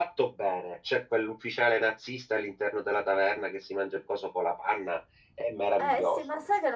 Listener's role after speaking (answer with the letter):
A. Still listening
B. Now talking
B